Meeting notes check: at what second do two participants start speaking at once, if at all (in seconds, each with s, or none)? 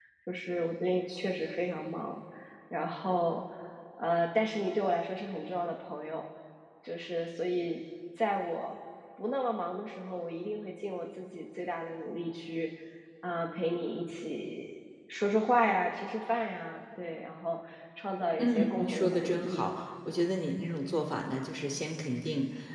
18.4 s